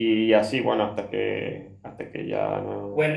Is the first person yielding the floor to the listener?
Yes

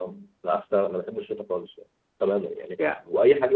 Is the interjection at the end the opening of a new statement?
No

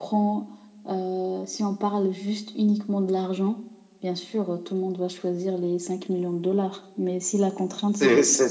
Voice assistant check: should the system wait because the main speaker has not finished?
No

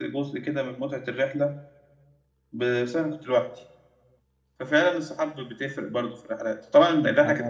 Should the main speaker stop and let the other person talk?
No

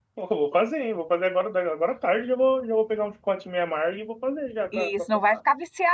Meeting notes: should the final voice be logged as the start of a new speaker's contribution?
Yes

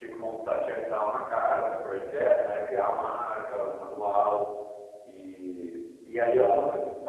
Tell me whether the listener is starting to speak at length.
No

